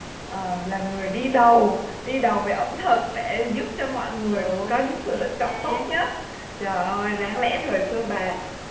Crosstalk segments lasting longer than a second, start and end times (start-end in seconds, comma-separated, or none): 4.3-5.8